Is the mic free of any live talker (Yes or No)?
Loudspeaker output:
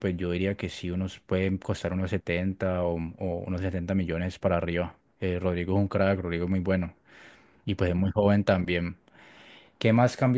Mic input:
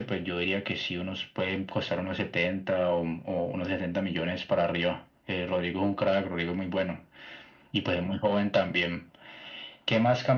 Yes